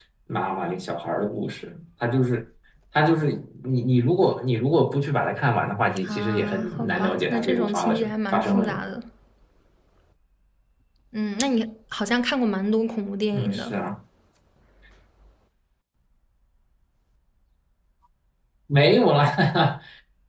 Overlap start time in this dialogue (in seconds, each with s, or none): 6.0 s